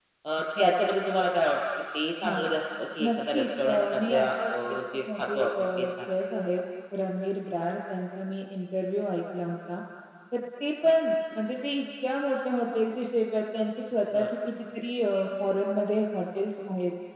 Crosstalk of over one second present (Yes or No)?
Yes